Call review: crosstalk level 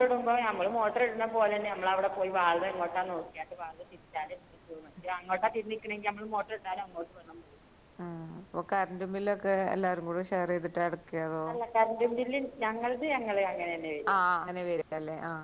none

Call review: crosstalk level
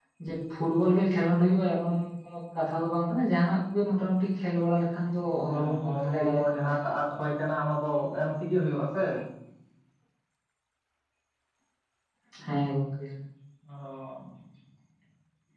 present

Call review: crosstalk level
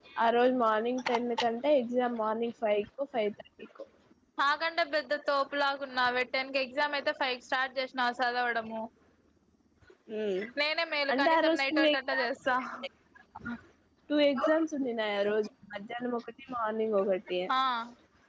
present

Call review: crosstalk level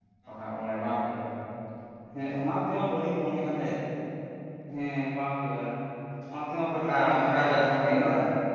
present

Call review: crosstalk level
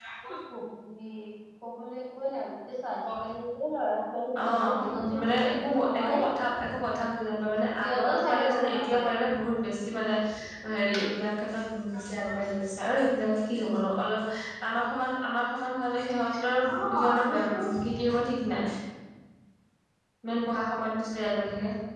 present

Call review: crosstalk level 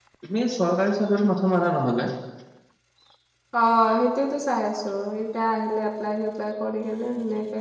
none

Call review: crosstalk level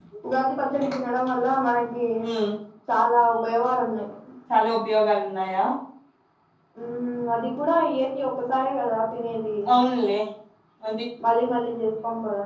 none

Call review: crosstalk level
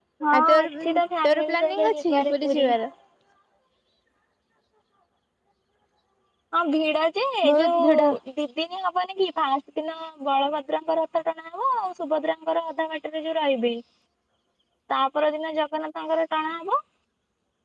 present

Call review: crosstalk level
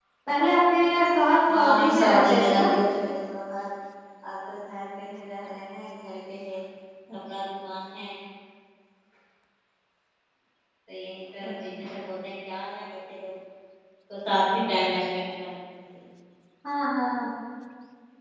present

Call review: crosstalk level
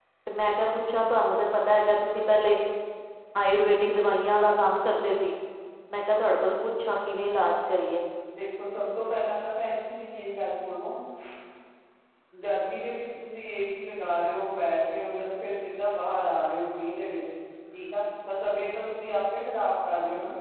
none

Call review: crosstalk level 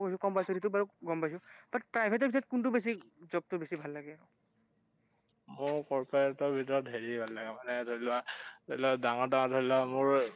none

